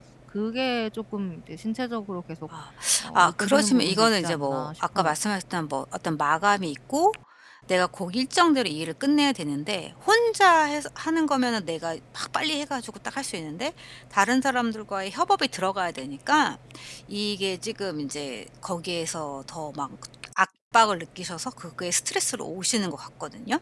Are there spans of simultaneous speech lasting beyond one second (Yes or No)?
Yes